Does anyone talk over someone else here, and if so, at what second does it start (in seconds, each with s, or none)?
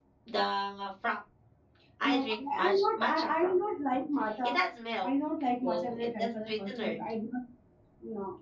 2.1 s